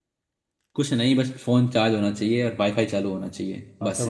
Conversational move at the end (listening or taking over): taking over